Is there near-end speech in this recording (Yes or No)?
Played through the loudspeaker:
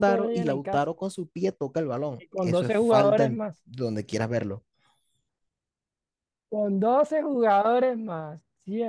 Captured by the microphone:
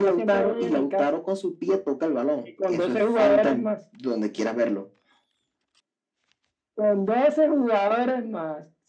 No